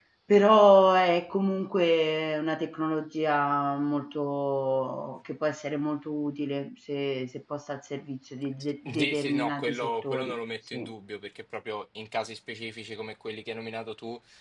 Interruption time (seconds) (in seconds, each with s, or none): 8.6 s